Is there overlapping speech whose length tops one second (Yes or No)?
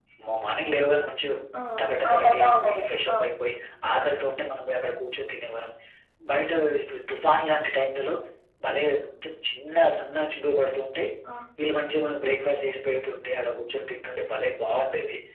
Yes